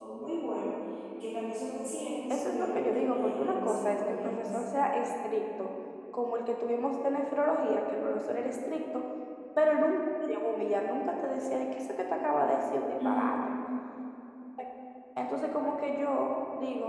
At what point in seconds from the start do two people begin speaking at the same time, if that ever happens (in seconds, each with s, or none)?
2.3 s